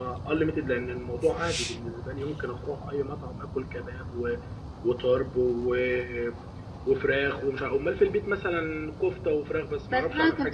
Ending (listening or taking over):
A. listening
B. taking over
B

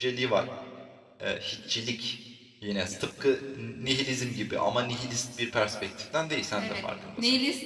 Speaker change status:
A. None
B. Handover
B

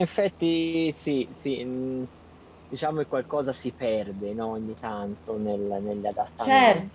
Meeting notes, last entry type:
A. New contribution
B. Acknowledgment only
A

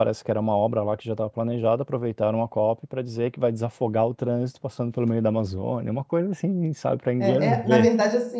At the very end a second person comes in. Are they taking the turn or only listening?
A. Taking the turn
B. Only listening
A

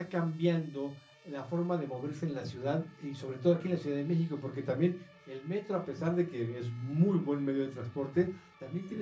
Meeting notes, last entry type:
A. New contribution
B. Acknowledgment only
B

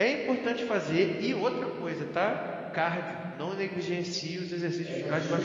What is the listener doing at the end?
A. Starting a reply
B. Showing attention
A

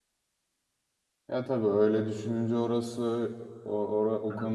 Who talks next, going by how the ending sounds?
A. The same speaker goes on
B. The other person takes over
B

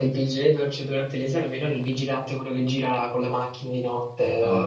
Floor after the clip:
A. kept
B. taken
A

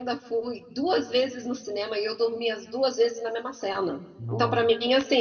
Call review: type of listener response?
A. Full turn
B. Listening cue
B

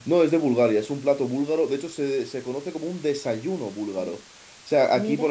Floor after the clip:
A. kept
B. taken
A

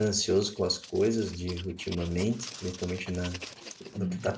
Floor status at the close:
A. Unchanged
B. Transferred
A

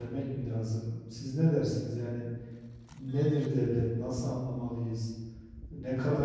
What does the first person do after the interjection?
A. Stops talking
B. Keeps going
B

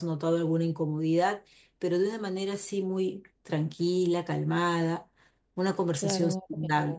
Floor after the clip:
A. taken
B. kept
A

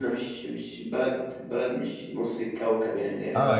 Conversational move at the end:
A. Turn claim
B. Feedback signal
A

